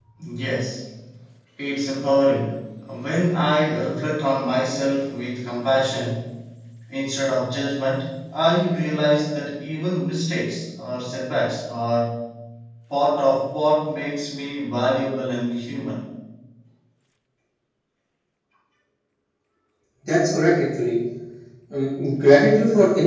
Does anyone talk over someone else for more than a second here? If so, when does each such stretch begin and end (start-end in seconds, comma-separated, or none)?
none